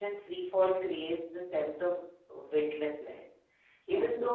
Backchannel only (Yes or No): Yes